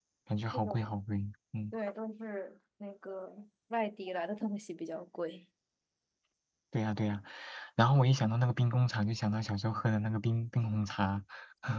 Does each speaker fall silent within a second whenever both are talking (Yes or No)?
Yes